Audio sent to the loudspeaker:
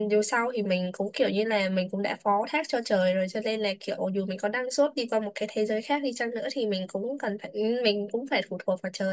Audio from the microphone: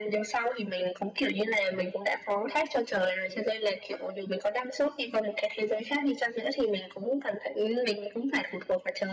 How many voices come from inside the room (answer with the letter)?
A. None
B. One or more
A